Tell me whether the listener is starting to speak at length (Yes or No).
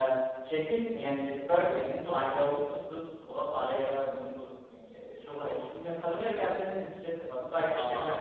Yes